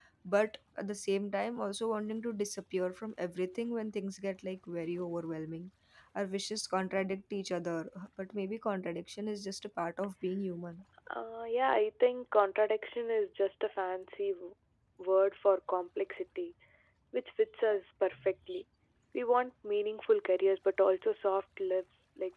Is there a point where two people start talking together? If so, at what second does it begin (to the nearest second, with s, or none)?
none